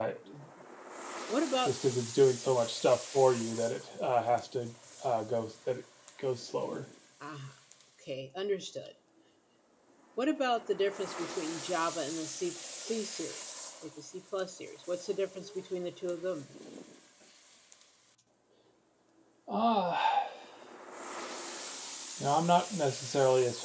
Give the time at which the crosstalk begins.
none

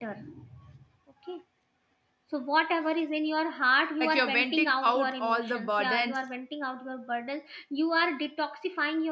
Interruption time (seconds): 4.0 s

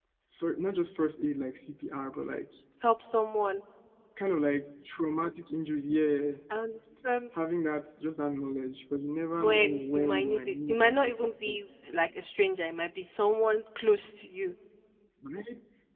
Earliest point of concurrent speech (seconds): 9.4 s

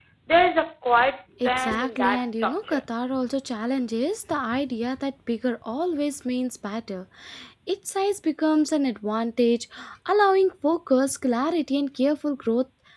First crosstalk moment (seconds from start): 1.4 s

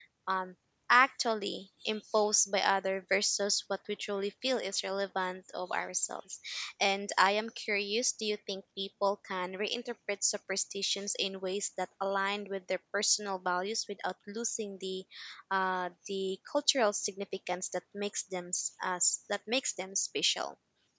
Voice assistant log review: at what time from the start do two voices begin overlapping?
none

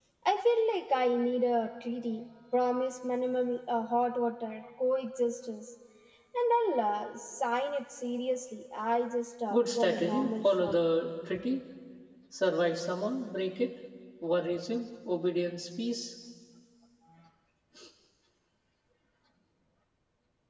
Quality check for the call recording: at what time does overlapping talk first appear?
9.5 s

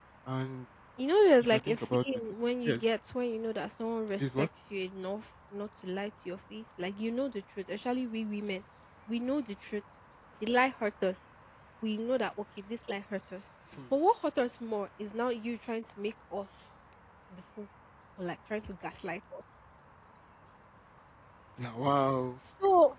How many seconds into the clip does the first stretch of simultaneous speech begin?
1.4 s

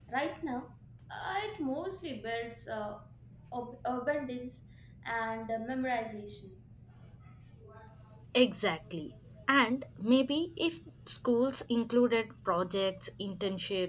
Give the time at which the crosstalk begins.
none

